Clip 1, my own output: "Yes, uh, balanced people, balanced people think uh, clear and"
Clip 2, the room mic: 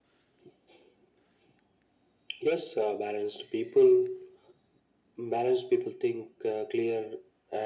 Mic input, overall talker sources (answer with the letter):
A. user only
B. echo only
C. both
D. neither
B